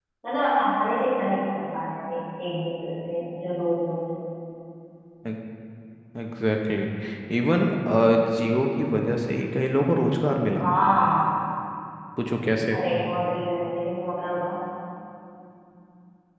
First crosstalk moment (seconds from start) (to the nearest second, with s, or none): none